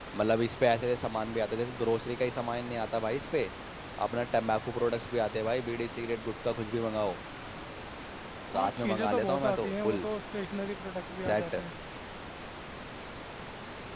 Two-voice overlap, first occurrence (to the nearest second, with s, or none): 9 s